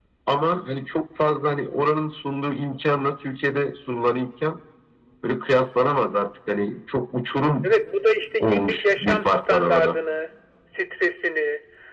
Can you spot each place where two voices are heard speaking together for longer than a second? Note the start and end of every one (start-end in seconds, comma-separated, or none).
8.4-10.0